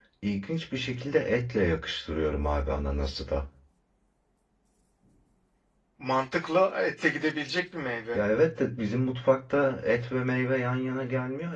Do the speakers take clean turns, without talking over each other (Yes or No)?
Yes